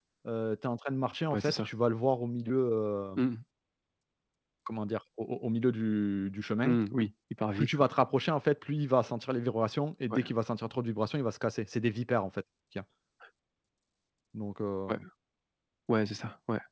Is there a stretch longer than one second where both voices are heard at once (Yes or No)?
No